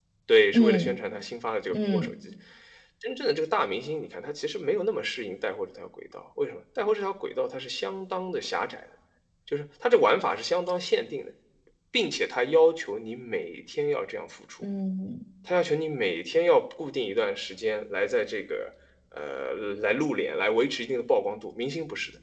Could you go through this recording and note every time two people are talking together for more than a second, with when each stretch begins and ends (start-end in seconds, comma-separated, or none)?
none